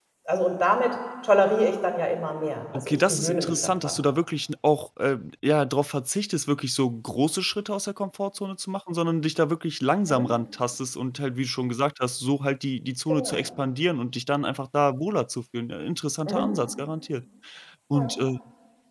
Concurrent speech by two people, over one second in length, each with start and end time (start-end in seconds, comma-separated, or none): 2.7-4.0